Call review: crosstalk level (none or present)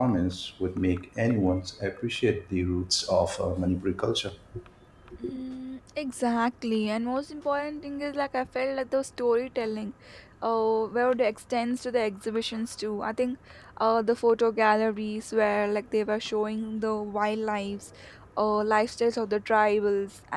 none